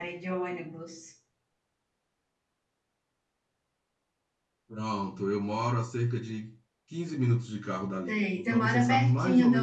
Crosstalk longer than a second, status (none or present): present